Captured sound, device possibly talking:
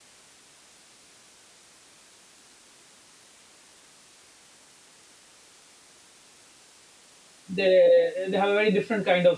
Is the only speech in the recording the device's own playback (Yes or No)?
No